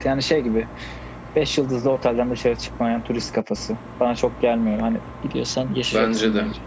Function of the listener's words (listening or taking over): taking over